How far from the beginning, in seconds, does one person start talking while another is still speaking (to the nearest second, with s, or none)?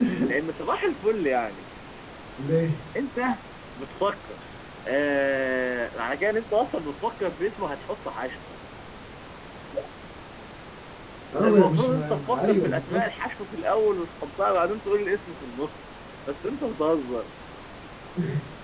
11 s